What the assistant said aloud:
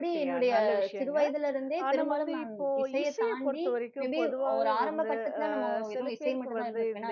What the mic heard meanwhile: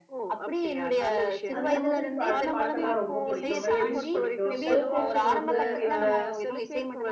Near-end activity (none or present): present